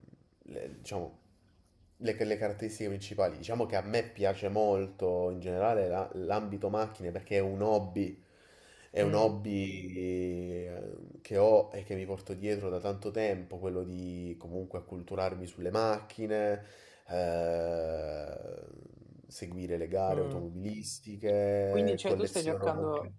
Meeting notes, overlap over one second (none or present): present